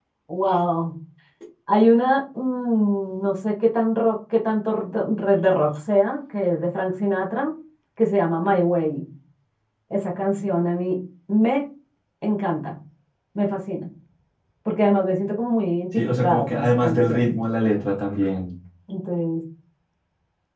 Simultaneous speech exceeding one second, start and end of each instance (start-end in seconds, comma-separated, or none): 15.9-17.4